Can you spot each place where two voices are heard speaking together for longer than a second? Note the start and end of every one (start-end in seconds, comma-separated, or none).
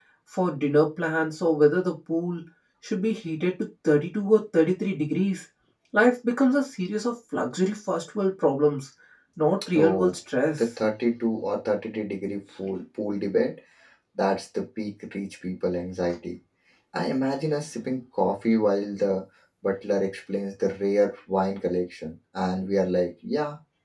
none